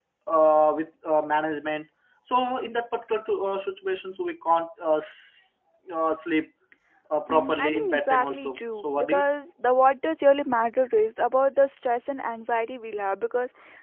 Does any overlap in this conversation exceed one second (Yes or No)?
Yes